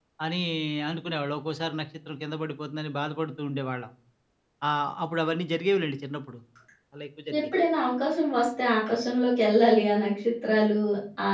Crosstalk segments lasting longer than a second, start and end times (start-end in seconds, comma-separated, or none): none